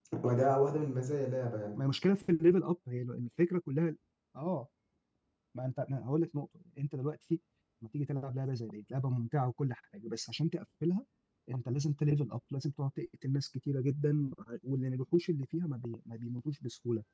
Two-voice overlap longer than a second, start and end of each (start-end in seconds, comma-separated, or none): none